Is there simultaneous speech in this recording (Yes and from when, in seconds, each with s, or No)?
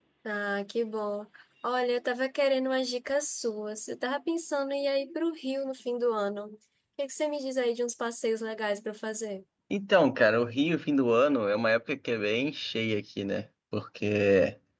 No